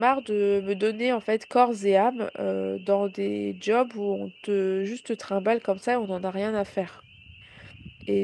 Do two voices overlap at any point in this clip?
No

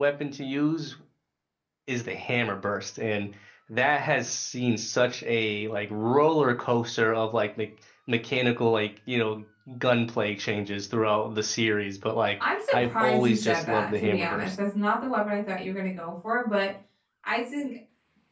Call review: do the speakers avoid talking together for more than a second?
No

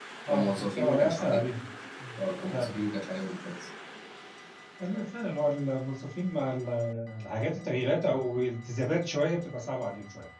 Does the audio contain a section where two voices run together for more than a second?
Yes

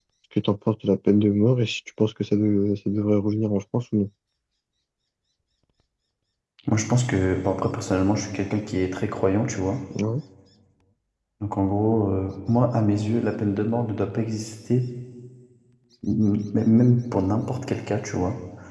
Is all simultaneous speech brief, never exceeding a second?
Yes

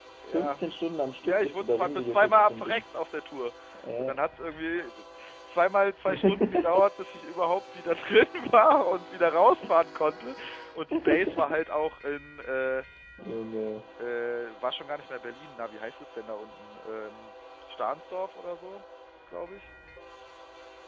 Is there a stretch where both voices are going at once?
Yes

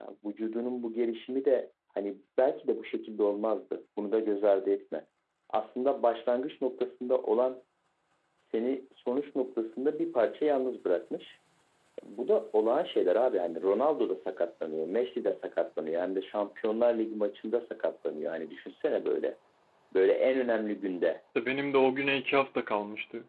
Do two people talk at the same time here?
No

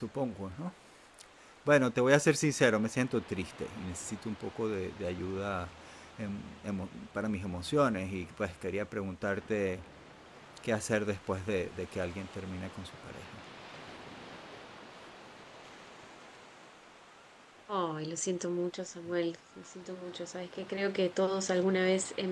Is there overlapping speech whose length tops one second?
No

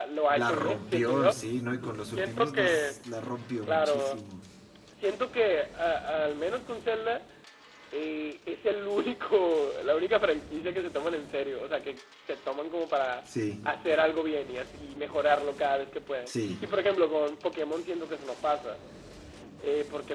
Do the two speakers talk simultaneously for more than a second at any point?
Yes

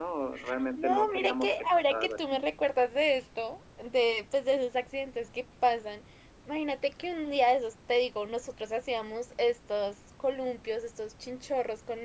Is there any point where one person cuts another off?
Yes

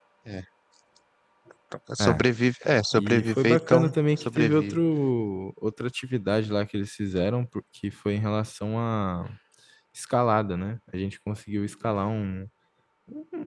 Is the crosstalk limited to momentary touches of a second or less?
No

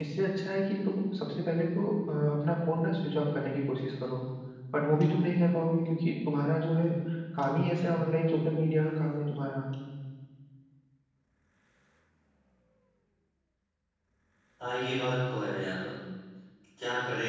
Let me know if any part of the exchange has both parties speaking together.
No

